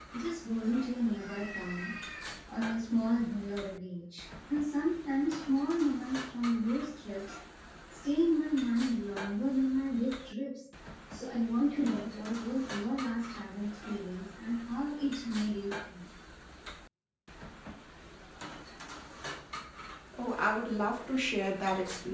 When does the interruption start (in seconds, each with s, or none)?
none